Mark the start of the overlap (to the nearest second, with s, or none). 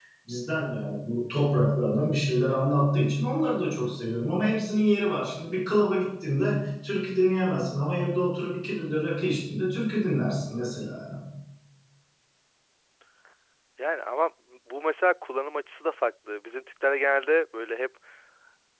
none